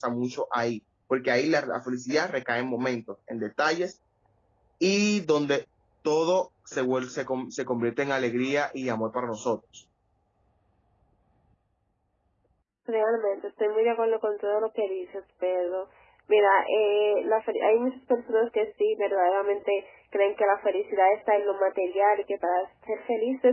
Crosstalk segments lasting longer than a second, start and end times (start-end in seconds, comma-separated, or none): none